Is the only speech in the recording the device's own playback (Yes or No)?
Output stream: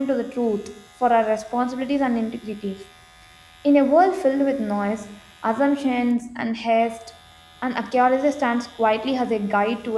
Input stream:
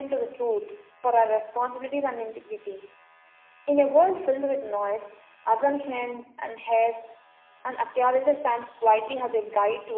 Yes